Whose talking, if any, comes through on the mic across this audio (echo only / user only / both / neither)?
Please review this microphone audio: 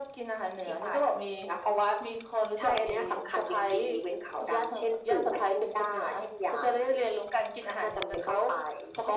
echo only